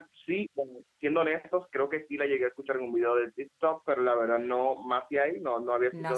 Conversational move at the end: taking over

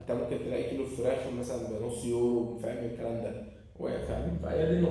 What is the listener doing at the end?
listening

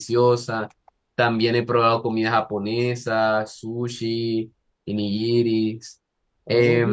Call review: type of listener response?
taking over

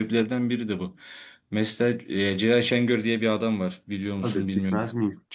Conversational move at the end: taking over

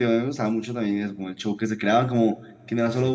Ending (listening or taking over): listening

